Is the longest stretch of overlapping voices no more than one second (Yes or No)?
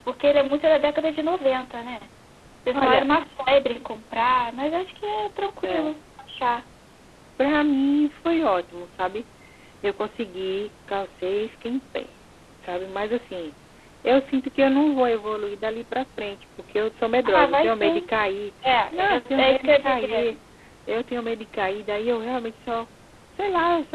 No